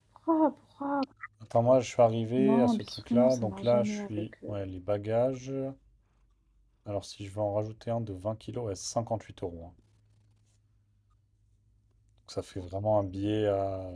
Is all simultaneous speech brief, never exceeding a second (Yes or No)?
No